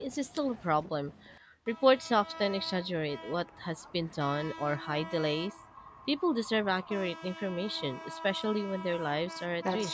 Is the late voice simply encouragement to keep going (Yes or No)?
No